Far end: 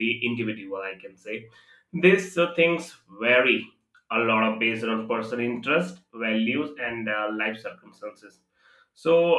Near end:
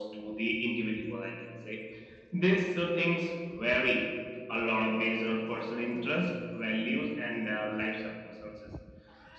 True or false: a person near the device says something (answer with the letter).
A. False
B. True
A